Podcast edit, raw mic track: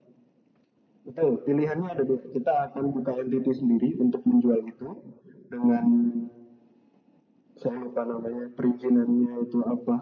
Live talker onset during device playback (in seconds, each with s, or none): none